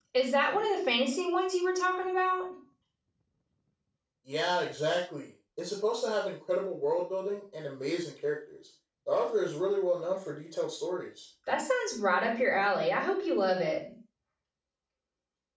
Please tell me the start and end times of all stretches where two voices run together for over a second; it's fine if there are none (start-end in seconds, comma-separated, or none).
none